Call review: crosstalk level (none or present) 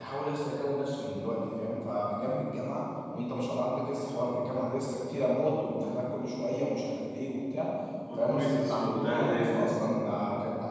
present